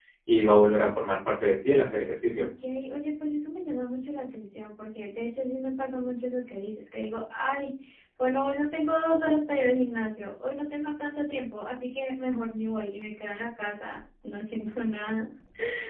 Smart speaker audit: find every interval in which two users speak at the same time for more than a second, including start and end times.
none

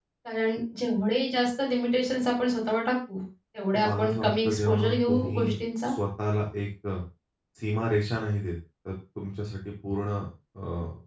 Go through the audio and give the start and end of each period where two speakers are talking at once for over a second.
3.8-5.5

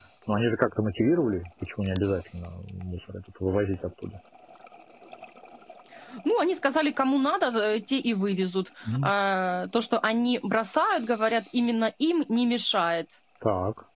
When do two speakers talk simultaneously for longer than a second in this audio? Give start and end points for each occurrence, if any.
none

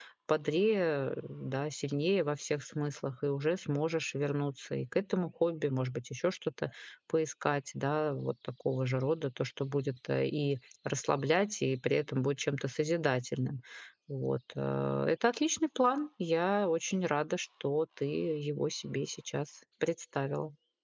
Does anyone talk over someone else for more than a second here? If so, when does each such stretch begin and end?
none

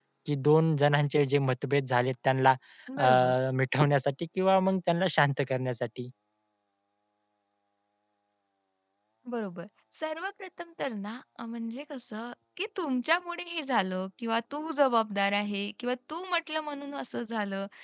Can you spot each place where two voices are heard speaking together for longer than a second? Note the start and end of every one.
none

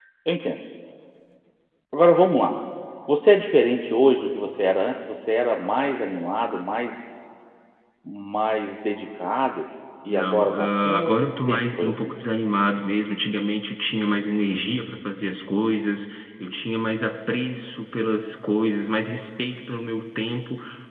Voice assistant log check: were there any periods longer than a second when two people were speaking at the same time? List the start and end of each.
10.1-12.1

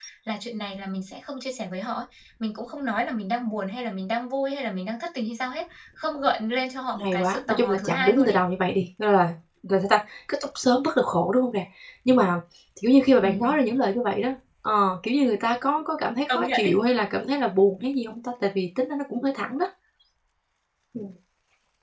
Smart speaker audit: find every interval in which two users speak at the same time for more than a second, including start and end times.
7.0-8.4

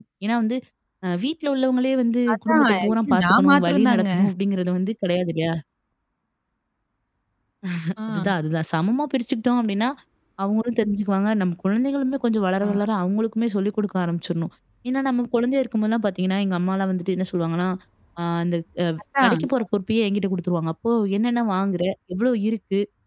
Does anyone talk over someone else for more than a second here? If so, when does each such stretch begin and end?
2.3-4.1

